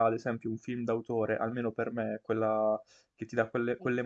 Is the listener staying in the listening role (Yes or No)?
Yes